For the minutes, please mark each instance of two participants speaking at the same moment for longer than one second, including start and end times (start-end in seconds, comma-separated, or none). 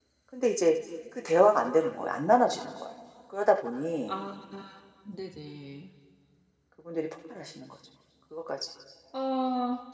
none